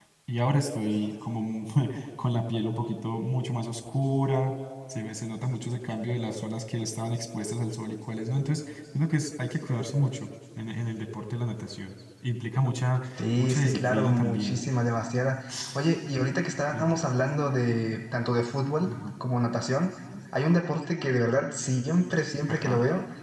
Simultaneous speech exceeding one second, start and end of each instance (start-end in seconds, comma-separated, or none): 13.2-14.6